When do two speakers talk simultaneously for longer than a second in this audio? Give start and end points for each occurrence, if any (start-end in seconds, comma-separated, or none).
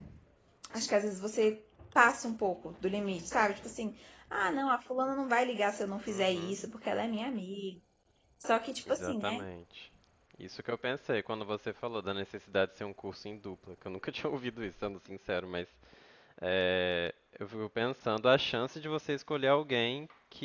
none